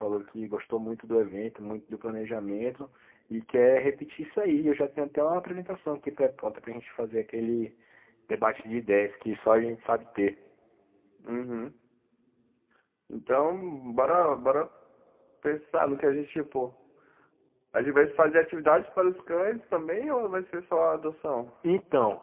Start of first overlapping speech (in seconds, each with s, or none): none